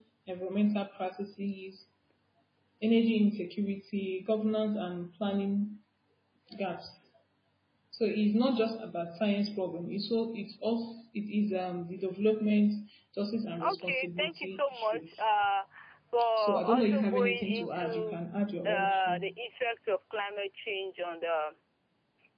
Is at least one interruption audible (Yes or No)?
Yes